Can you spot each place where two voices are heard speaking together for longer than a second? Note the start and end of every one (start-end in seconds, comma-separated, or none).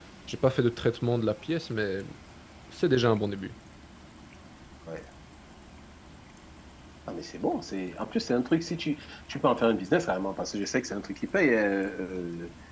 none